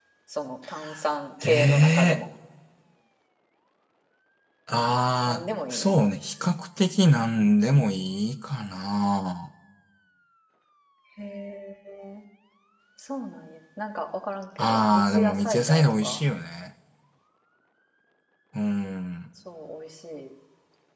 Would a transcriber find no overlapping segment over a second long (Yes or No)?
No